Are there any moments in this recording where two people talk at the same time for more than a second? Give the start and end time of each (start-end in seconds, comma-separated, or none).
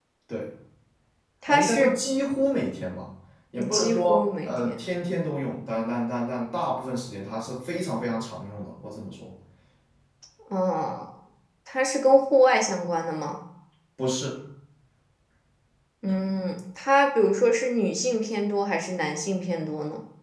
3.6-4.8